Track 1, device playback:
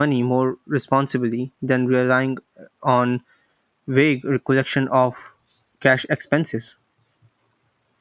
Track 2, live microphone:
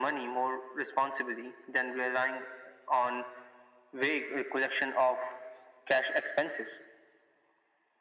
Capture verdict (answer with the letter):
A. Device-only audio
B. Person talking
A